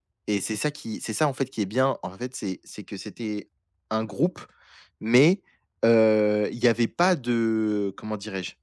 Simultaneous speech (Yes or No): No